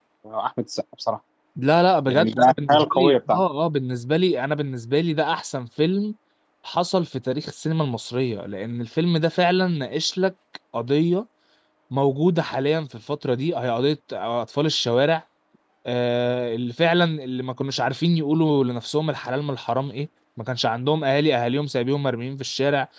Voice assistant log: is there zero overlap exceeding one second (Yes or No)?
No